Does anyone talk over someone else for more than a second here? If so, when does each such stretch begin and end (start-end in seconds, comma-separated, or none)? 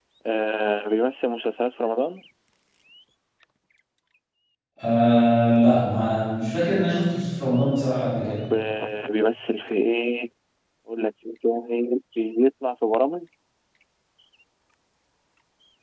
none